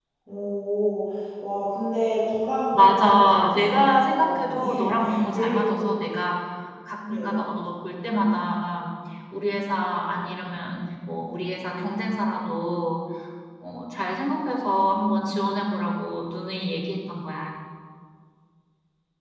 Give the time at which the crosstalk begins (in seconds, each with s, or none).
2.7 s